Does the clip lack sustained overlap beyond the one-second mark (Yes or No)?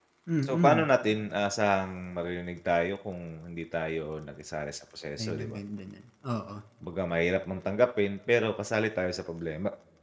Yes